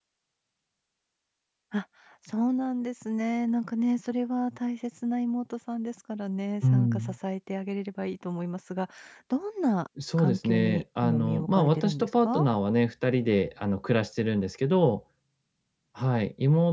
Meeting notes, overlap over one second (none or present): present